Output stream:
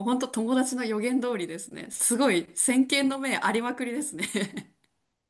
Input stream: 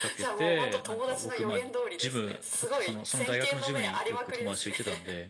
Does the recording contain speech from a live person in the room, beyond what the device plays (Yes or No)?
Yes